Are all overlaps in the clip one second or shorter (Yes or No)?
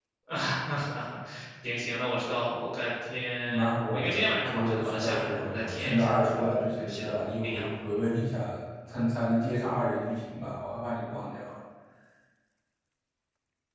No